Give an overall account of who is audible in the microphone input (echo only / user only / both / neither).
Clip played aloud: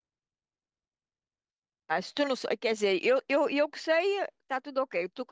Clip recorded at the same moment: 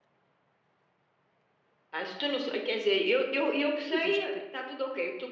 both